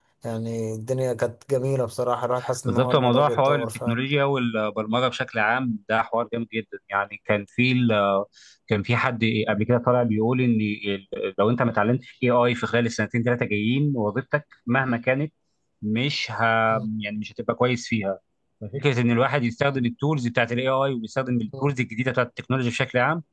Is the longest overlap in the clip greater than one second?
Yes, from 2.7 s

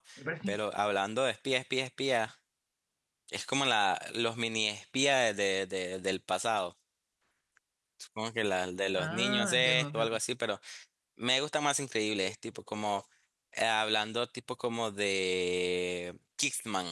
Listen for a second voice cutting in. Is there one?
Yes, from 8.9 s

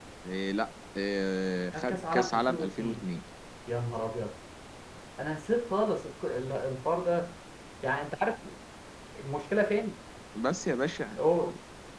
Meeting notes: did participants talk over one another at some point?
Yes, from 1.7 s

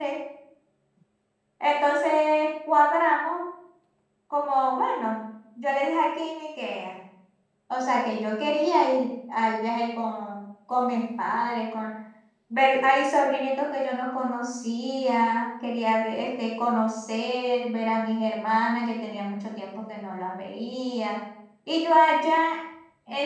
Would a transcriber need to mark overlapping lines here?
No

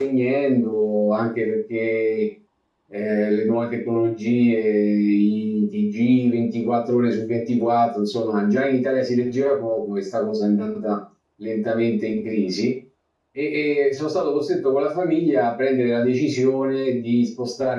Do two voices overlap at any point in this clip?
No

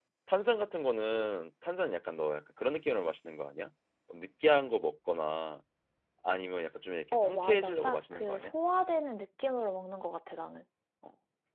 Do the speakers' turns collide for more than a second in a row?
Yes, from 7.1 s

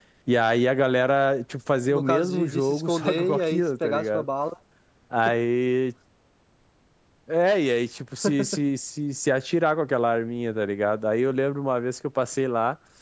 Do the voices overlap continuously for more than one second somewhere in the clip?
Yes, from 1.9 s

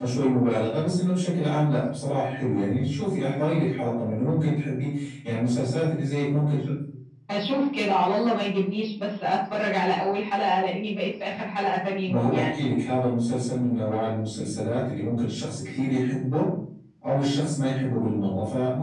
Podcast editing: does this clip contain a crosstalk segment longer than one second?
No

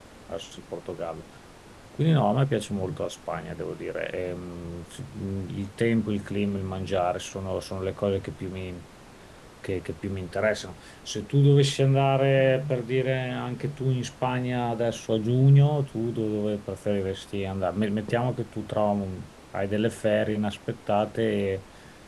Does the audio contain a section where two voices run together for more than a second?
No

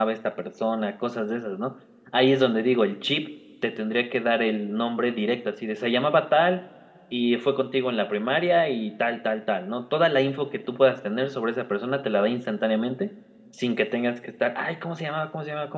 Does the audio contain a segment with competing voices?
No

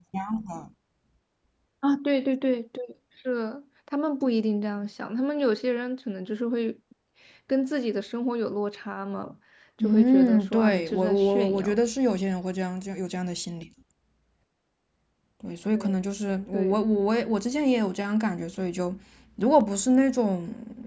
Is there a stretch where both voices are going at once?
Yes, from 9.8 s

